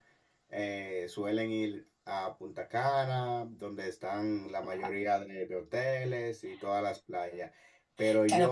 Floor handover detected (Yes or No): Yes